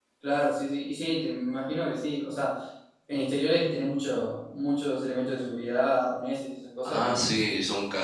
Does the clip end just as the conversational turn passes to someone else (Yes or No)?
Yes